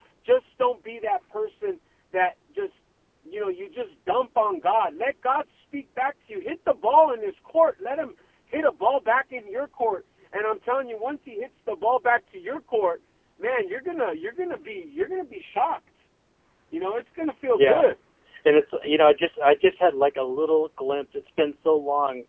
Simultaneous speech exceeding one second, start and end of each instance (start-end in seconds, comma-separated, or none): none